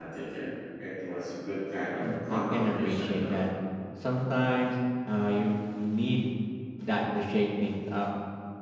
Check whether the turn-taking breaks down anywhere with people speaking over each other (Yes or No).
Yes